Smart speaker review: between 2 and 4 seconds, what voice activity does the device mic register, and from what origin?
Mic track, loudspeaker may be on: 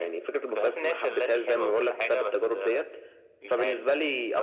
echo only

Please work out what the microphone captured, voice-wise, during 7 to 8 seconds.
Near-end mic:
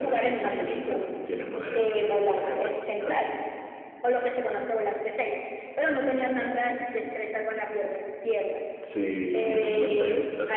echo only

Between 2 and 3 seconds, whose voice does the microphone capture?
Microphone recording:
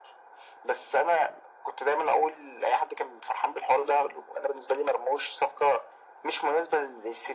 echo only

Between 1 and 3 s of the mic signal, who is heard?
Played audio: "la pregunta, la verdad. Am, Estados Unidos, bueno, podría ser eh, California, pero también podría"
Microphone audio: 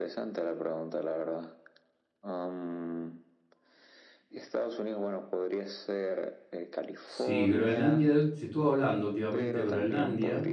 echo only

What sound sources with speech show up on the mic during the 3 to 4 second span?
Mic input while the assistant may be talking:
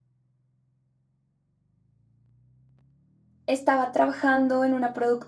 user only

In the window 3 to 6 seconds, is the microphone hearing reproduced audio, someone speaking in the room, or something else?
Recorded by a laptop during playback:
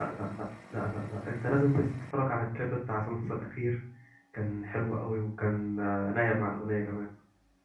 user only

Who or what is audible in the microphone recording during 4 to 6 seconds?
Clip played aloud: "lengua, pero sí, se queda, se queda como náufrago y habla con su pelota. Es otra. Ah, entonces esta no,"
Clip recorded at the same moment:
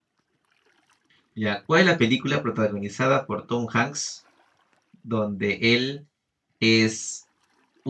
user only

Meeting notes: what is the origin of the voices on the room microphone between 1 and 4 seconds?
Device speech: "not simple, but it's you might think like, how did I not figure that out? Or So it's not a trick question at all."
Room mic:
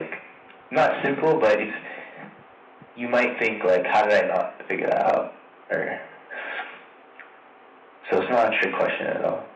echo only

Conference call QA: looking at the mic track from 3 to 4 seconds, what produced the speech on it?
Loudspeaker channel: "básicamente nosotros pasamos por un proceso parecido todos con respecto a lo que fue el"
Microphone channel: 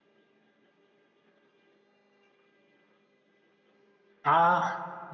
neither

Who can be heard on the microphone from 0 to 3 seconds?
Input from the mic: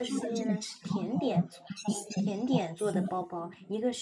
both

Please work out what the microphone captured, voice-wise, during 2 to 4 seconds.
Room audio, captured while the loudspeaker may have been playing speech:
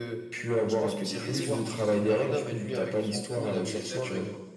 both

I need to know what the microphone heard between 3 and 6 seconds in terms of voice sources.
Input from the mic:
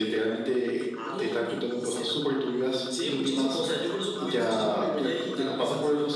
both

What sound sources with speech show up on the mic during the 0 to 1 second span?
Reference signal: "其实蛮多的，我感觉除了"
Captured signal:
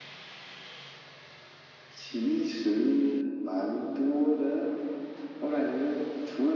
neither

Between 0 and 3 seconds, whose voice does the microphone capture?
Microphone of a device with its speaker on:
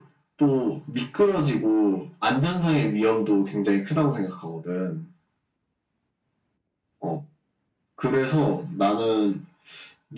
echo only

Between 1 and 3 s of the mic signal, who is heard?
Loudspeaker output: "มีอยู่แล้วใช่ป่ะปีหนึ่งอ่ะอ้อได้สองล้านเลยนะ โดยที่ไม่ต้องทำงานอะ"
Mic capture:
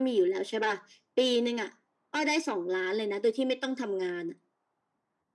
echo only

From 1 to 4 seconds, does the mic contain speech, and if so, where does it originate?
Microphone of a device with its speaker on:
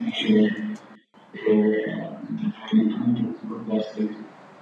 echo only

